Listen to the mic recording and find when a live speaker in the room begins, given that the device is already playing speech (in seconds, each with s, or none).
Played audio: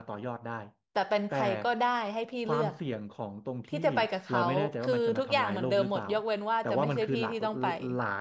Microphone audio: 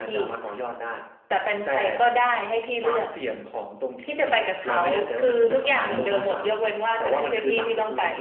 5.5 s